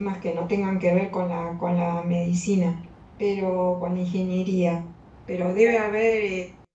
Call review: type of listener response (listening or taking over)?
listening